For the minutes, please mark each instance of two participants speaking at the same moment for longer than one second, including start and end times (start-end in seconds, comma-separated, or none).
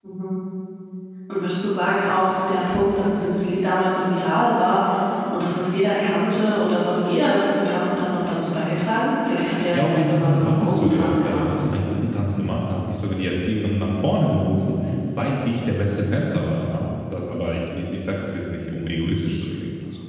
9.7-11.6